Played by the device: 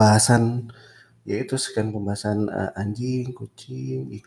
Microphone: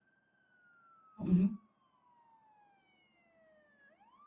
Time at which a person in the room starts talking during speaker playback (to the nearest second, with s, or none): 1 s